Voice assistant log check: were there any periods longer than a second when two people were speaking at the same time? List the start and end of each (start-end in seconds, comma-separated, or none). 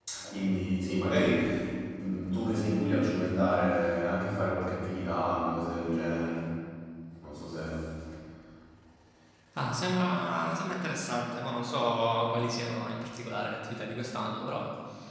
none